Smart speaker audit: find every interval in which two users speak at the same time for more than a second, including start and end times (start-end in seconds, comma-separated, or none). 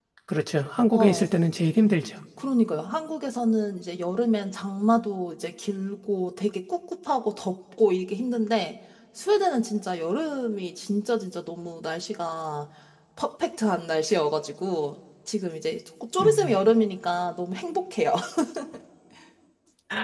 none